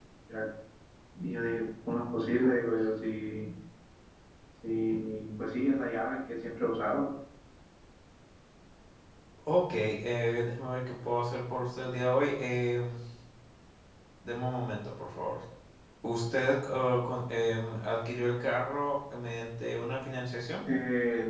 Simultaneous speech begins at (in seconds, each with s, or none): none